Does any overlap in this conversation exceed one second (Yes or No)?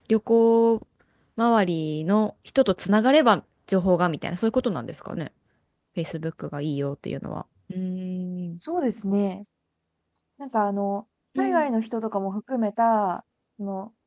No